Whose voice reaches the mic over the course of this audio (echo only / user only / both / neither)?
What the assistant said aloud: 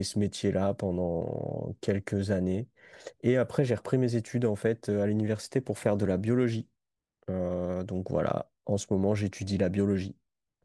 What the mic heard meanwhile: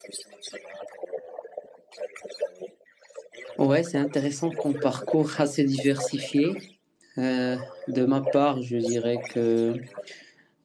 both